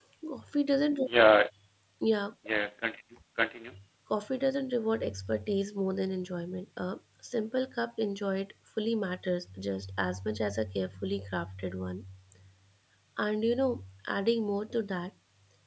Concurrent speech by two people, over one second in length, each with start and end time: none

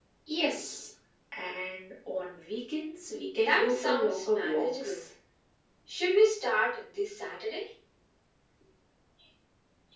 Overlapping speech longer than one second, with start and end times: 3.4-5.0

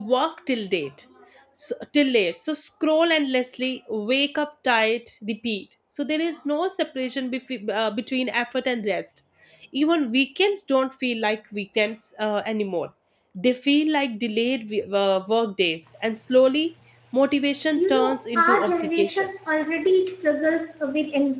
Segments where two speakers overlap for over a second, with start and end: 17.8-19.3

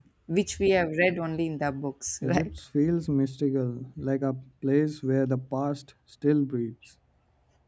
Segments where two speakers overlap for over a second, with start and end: none

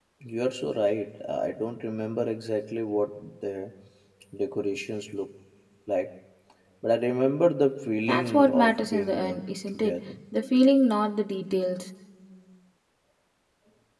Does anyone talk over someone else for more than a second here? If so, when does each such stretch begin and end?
8.0-10.1

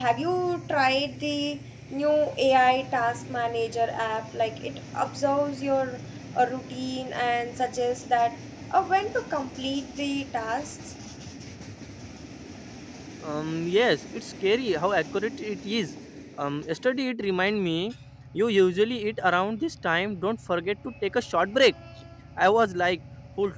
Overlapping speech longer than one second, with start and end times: none

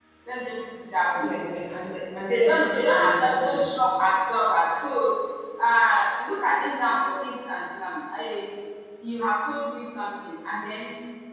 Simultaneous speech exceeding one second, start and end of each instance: 2.3-3.6

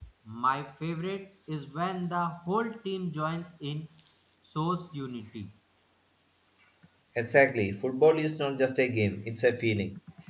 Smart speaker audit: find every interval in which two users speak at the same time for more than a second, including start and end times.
none

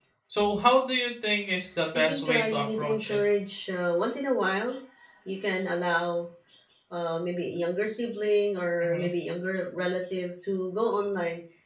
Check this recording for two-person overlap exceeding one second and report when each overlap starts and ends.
1.9-3.2

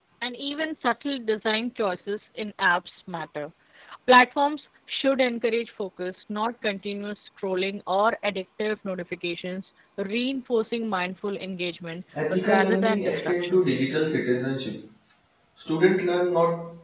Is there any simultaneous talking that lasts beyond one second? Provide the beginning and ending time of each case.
12.5-13.7

